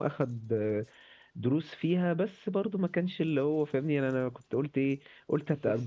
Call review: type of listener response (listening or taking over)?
listening